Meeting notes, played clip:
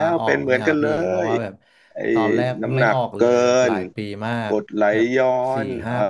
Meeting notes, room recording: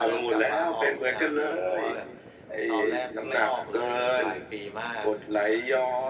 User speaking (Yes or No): No